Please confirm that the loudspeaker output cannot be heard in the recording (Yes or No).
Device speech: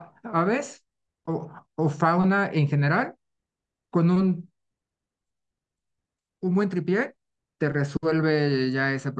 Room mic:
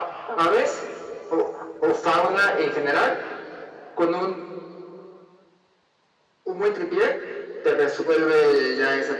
No